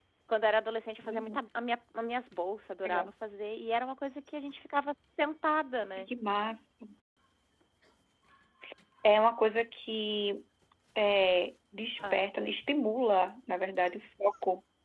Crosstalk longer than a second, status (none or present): none